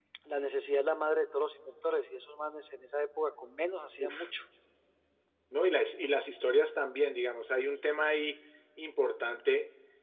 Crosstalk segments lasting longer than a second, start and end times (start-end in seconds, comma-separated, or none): none